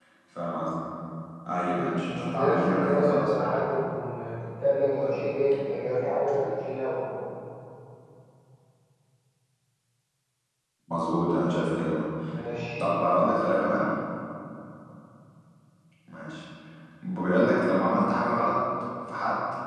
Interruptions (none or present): present